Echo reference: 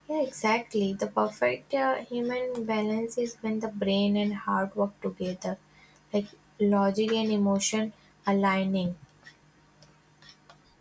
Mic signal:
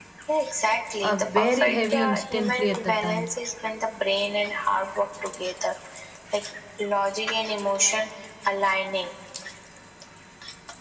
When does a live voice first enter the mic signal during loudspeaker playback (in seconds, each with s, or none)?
1.0 s